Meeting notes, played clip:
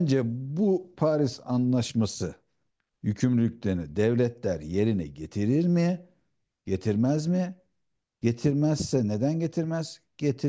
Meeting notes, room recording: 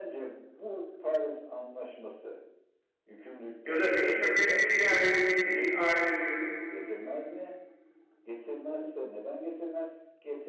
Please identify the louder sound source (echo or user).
user